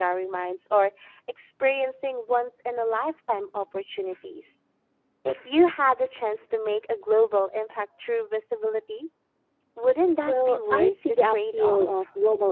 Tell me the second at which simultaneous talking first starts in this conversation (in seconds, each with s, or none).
10.2 s